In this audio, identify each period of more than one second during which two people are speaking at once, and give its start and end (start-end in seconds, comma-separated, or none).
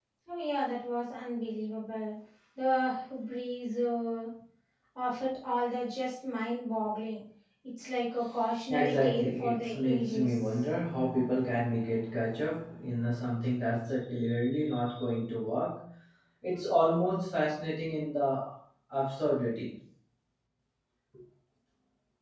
8.7-10.3